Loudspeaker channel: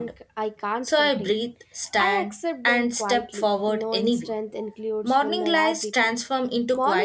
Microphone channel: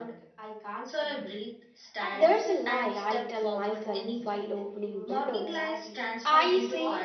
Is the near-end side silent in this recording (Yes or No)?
No